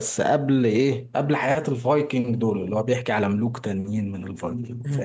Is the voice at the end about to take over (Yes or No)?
Yes